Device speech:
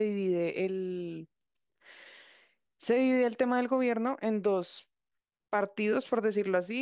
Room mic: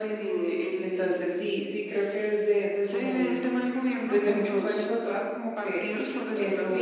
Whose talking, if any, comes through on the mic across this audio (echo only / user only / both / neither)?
both